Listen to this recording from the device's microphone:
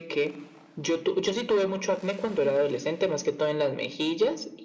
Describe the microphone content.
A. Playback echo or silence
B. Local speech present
A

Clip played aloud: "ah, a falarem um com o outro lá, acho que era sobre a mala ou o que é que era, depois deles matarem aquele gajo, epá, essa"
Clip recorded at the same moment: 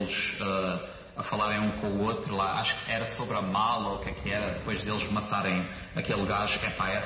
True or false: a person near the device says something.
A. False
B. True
A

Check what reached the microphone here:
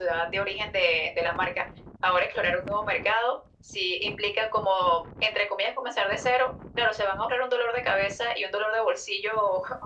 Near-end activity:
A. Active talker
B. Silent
B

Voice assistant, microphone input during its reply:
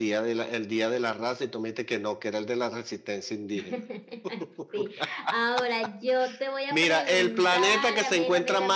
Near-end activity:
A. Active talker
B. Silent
B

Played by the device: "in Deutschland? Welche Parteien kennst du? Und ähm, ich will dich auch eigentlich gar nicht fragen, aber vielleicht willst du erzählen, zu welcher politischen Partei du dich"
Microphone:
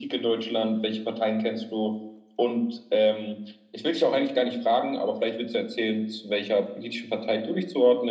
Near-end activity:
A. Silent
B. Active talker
A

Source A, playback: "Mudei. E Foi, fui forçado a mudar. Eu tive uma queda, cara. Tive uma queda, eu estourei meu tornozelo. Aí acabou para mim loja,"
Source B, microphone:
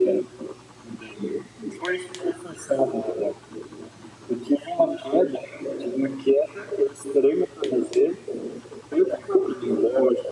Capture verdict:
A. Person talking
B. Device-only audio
B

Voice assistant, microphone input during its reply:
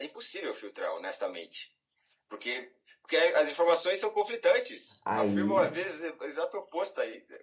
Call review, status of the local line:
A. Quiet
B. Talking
B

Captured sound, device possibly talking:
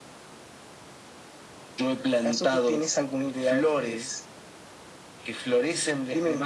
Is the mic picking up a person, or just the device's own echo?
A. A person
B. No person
B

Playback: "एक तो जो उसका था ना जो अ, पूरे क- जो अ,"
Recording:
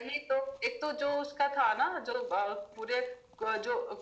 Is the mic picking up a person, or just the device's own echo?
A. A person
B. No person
B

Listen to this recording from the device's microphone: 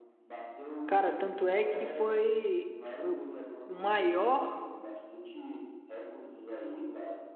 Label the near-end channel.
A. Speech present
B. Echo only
A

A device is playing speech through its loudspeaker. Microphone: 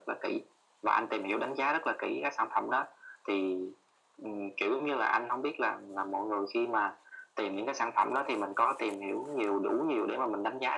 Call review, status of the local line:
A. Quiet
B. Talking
A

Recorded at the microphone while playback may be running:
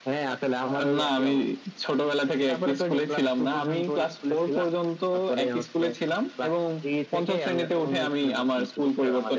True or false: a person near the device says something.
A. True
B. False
B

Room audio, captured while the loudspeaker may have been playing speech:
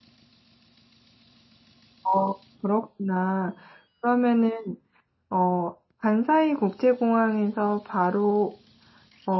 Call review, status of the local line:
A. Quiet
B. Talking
B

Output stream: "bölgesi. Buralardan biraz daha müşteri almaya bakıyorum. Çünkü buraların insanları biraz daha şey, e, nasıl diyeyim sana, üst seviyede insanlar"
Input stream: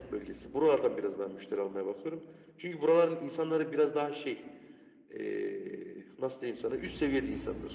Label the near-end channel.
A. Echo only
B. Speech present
A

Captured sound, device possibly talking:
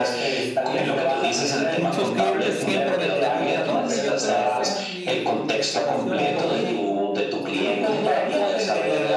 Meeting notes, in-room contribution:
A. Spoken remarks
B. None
A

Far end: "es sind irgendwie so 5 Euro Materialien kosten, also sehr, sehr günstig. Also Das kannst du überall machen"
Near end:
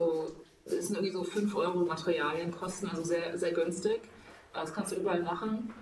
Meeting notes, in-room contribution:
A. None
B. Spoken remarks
A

